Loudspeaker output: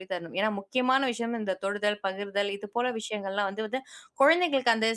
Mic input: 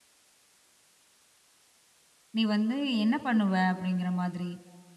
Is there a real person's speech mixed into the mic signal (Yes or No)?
Yes